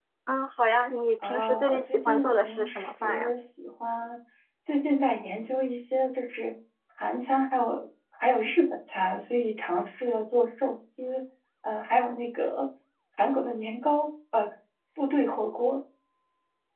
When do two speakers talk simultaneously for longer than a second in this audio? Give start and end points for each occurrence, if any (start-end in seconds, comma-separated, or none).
1.2-3.3